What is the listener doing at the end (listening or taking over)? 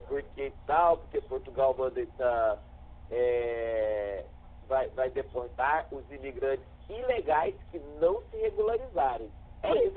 listening